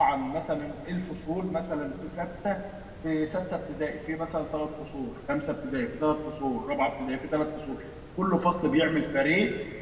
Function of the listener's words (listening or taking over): listening